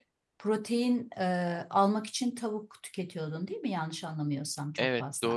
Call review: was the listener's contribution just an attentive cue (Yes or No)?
No